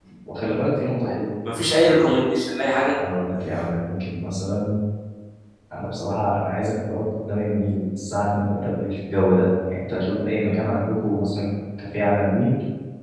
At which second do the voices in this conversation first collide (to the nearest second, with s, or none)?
none